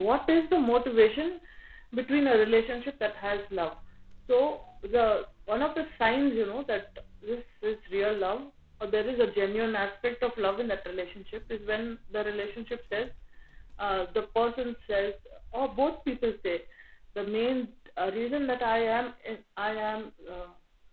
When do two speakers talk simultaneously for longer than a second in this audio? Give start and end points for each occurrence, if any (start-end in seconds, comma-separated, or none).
none